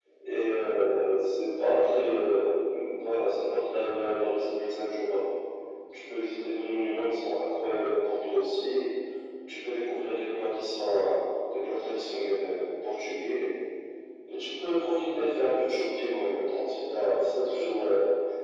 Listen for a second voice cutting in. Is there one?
No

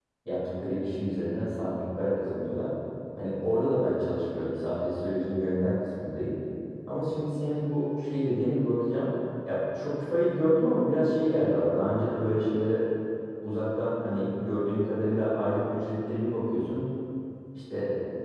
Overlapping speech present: No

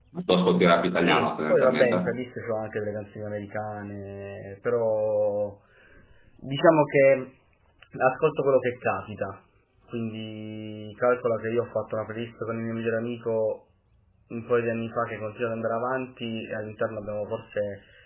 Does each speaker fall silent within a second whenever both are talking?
No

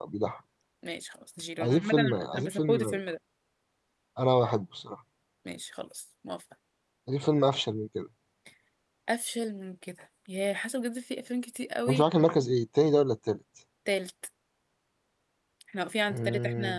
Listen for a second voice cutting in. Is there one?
Yes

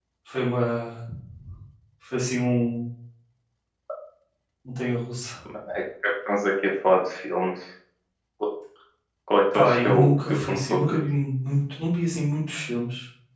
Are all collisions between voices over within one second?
No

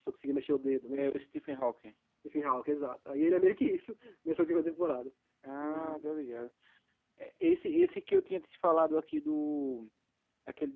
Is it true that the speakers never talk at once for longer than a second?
Yes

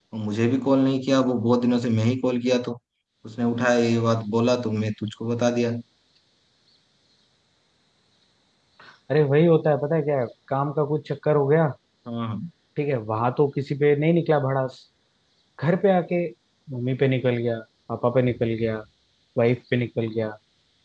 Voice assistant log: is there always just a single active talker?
Yes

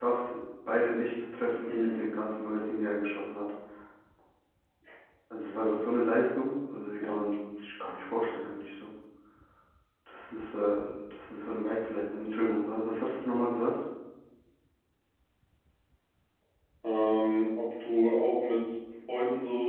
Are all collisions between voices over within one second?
Yes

